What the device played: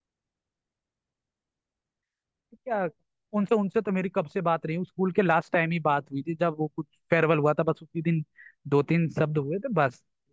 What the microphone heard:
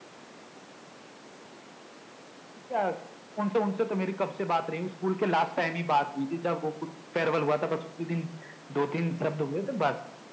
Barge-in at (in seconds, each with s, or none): none